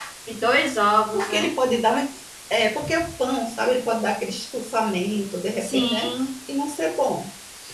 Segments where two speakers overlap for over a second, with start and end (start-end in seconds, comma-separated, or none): none